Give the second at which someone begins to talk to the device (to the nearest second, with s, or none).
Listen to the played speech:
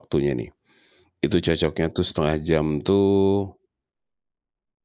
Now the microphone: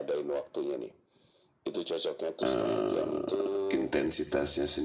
2 s